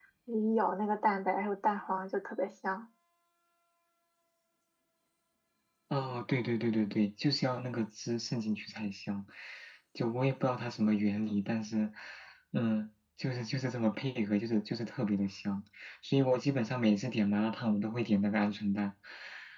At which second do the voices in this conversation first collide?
none

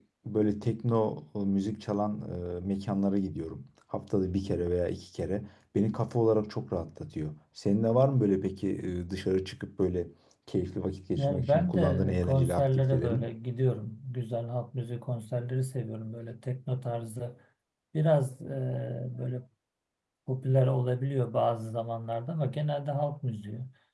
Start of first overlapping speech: 11 s

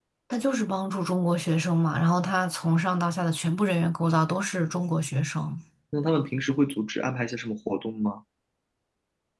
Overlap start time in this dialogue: none

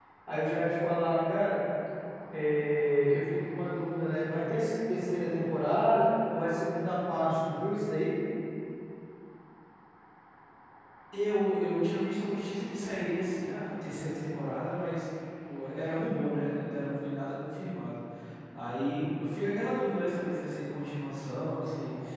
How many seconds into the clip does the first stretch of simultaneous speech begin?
none

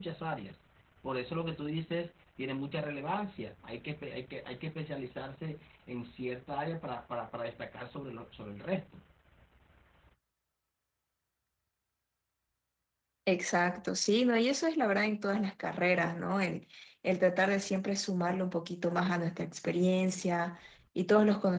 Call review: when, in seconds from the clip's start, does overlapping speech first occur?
none

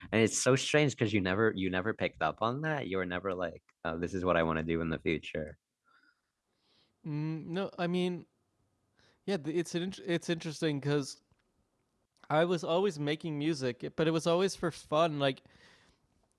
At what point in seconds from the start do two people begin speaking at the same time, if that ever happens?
none

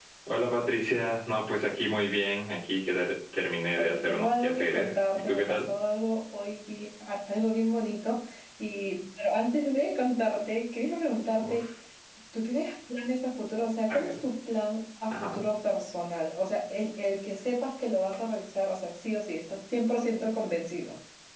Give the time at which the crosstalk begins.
4 s

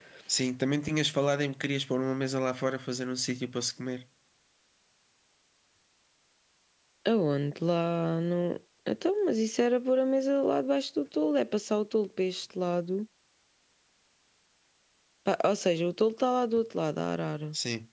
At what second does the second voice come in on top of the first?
none

